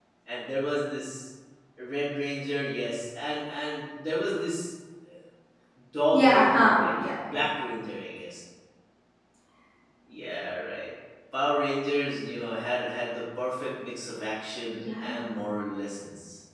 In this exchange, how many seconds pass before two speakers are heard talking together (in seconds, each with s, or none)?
6.1 s